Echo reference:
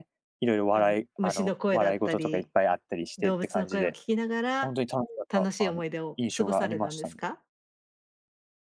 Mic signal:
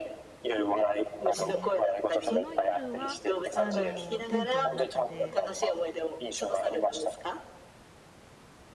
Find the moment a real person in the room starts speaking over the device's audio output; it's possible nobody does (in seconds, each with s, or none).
1.4 s